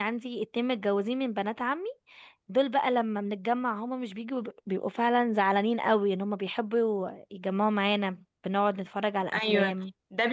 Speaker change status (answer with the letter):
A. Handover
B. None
A